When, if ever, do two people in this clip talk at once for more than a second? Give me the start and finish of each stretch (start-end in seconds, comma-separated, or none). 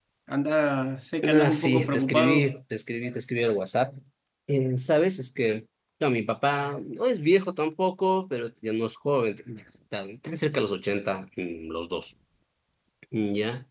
1.2-2.5